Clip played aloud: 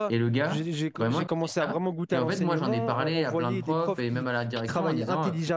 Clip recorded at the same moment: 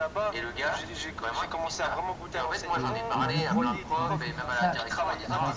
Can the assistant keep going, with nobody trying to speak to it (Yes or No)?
No